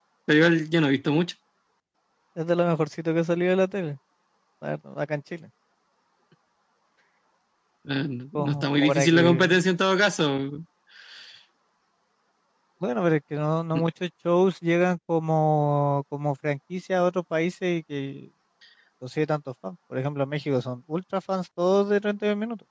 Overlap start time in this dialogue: 8.4 s

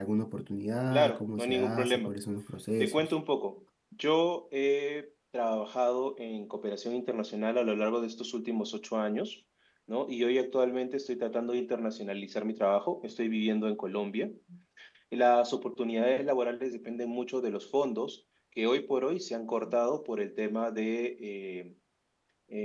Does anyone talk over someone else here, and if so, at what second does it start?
0.9 s

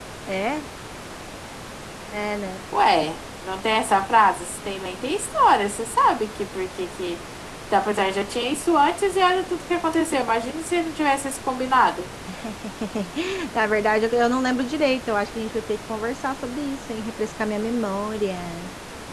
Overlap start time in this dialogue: none

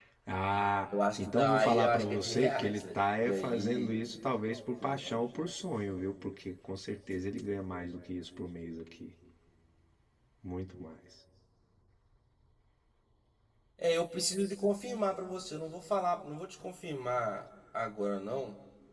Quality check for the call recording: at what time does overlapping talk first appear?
1.2 s

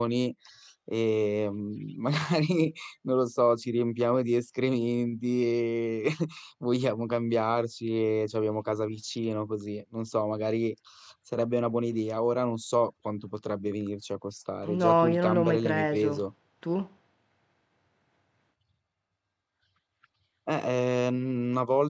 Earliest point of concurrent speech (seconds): 14.6 s

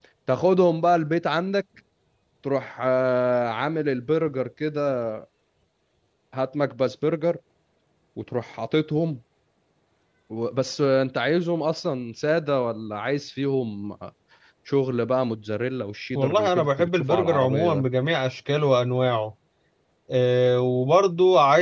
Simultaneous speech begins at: 16.2 s

